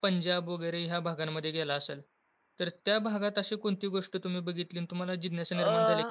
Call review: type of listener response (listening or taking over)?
listening